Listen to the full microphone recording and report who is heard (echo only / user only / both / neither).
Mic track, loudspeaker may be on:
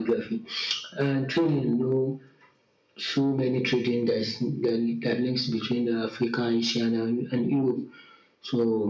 echo only